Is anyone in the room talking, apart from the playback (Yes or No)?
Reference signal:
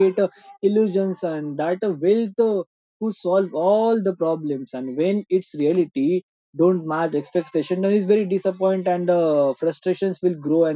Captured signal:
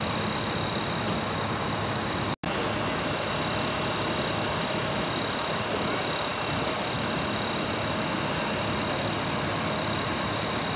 No